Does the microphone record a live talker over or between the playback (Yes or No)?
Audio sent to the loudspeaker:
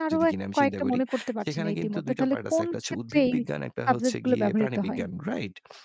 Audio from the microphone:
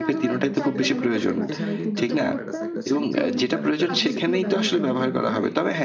Yes